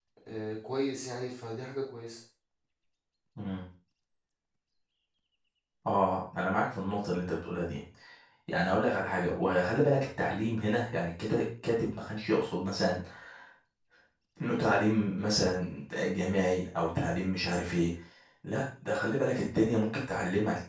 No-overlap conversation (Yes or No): Yes